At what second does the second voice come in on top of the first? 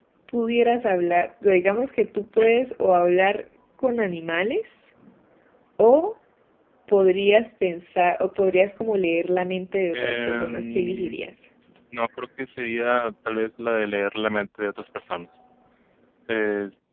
9.9 s

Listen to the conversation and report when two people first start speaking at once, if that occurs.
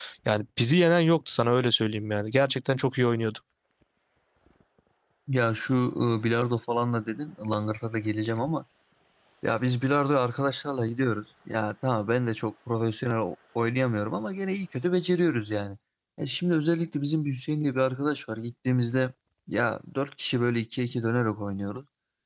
none

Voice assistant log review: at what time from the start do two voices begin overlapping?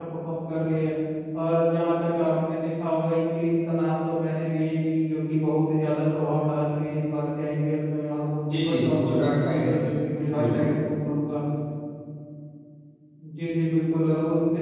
8.5 s

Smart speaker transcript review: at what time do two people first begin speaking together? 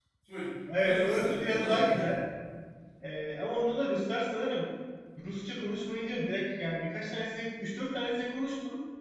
0.8 s

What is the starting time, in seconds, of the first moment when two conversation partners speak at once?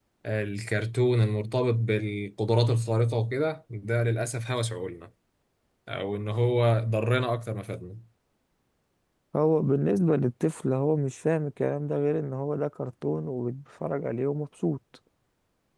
none

